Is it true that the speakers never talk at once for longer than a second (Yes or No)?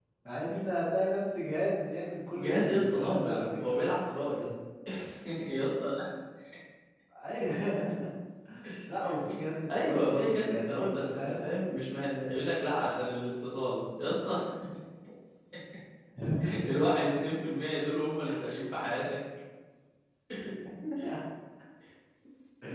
No